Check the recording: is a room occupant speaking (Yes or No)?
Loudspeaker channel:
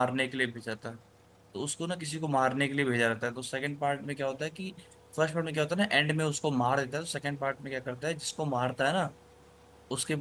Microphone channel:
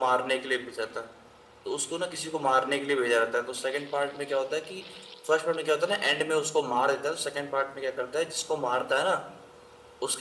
No